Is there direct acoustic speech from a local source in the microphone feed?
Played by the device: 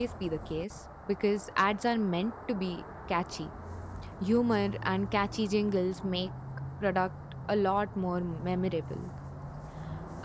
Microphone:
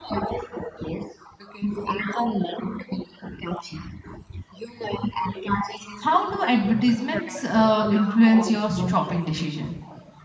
Yes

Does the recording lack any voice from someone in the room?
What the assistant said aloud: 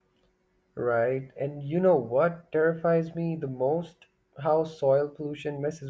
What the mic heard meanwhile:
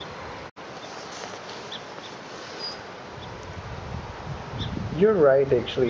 No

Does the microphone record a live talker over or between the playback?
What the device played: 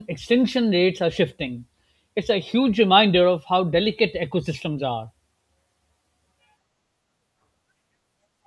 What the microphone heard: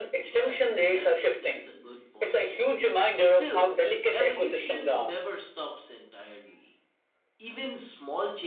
Yes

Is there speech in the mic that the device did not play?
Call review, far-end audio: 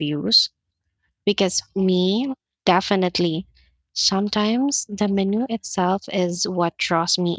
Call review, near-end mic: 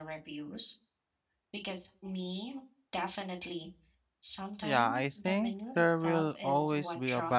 Yes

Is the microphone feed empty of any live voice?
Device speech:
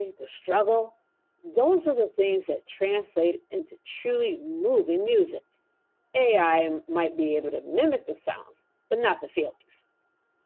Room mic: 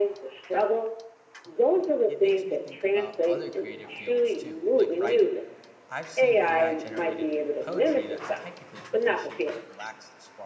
No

